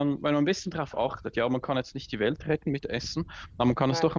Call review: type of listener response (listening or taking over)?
listening